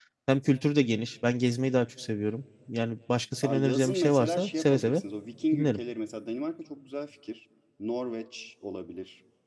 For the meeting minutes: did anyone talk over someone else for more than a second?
Yes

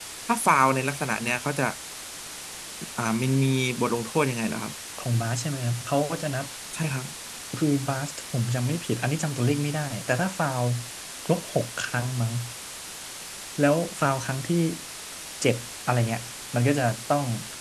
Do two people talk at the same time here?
No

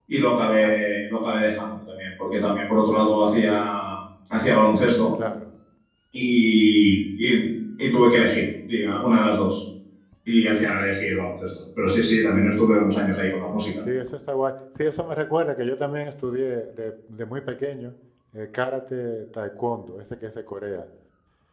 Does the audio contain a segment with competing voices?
No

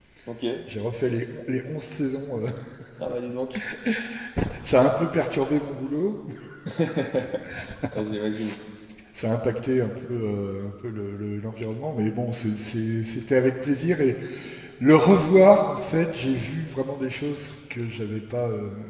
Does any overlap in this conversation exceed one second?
No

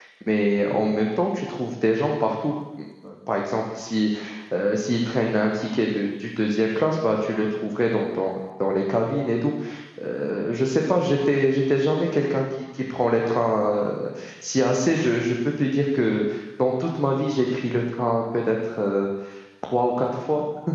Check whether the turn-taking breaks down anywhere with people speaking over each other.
No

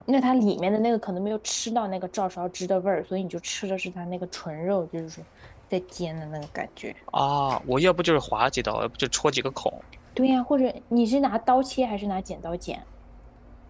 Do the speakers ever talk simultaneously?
No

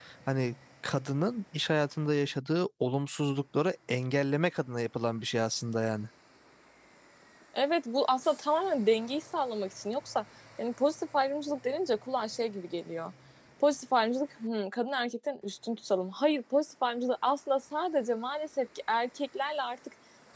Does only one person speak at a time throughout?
Yes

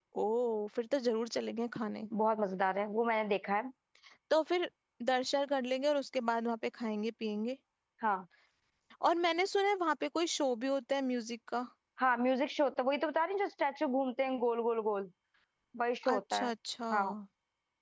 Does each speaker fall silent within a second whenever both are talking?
Yes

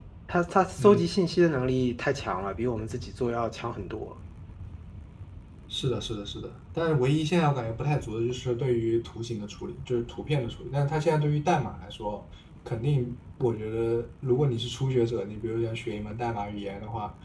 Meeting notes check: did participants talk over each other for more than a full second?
No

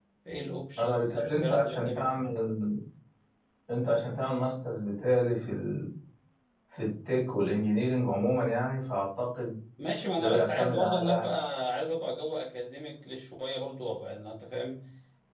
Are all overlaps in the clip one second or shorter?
No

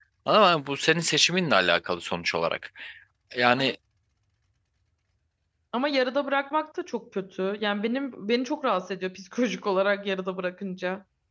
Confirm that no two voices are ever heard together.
Yes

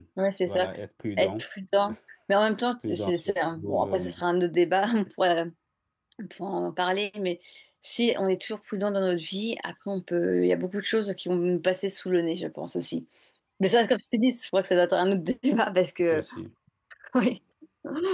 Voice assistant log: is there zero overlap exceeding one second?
No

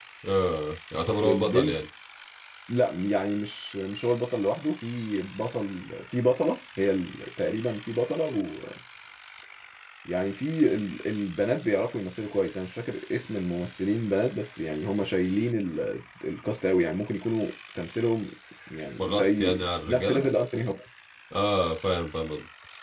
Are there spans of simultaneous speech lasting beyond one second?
Yes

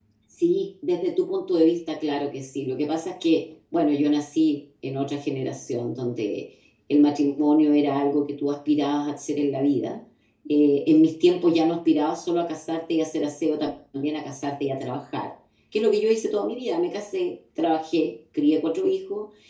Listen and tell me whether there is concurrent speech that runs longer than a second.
No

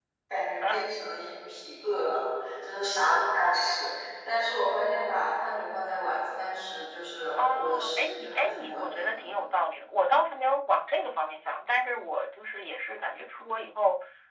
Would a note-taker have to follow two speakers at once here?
Yes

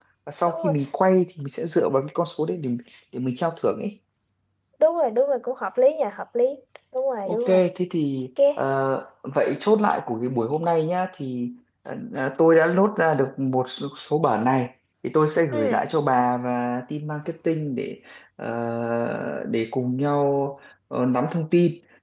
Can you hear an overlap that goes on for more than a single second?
No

